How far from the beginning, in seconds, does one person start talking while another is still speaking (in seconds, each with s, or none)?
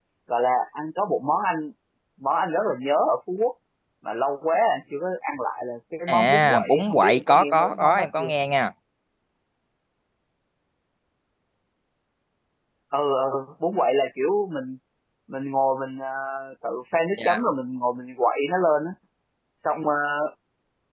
6.1 s